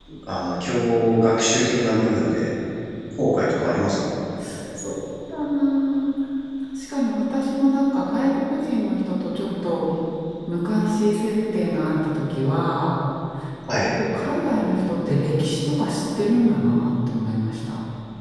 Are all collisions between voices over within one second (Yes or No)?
Yes